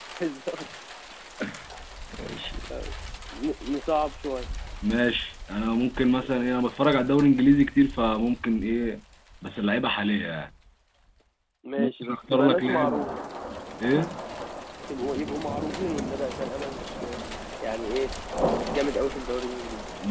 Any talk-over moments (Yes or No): Yes